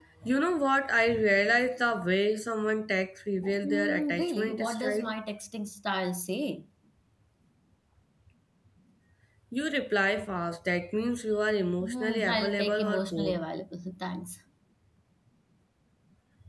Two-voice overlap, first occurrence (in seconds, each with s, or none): 3.6 s